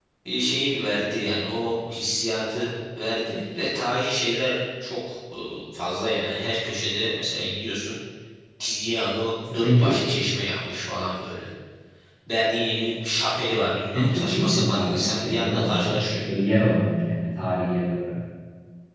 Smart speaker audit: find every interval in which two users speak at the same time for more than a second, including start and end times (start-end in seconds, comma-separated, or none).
13.9-16.1